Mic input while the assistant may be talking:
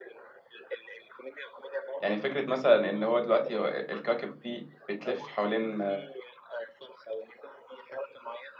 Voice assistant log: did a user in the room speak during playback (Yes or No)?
Yes